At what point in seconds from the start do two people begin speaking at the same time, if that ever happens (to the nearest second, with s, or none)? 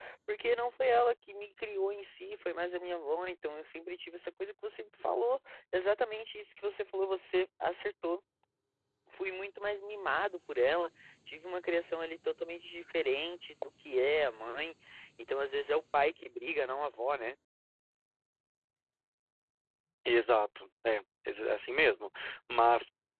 none